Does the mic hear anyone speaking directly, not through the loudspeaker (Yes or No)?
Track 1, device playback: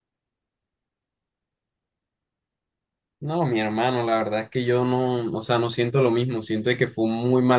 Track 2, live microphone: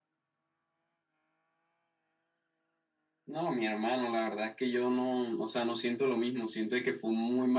No